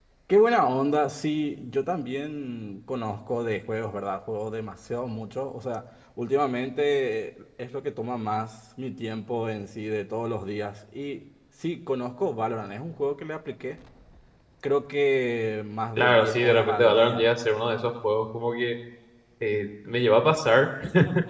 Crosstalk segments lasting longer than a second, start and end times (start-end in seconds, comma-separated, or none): 16.0-17.3